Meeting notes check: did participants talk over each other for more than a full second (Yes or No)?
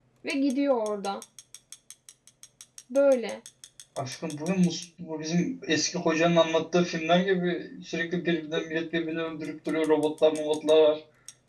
No